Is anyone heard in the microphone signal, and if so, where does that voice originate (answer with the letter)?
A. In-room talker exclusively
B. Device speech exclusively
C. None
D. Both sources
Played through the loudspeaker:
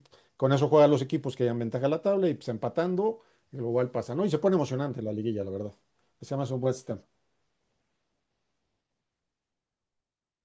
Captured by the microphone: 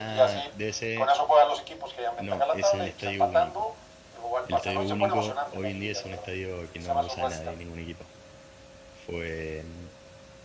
D